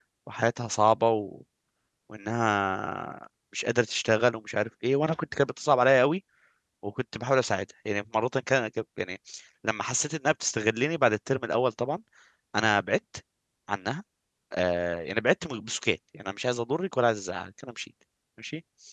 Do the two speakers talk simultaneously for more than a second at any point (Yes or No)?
No